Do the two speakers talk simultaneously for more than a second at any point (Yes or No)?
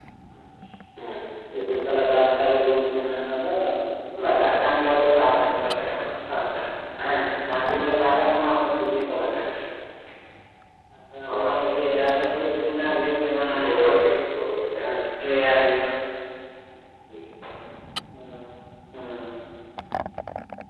No